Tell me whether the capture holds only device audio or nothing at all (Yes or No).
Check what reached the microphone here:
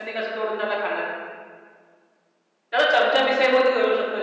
No